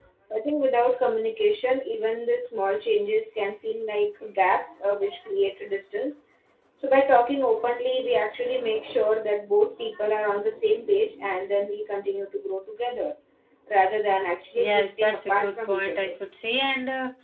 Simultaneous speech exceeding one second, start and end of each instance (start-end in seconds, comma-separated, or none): 14.6-16.2